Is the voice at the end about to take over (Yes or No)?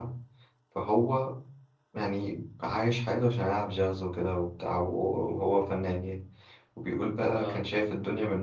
No